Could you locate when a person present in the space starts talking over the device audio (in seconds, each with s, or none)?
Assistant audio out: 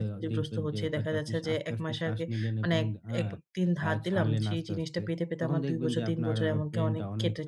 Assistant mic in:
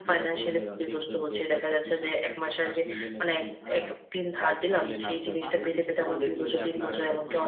5.1 s